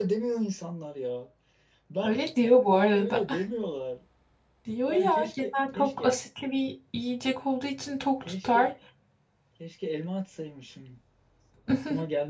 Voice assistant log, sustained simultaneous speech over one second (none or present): present